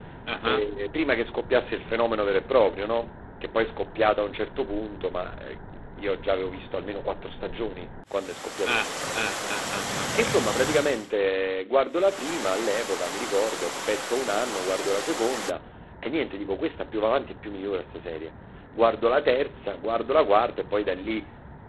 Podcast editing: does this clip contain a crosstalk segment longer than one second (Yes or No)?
No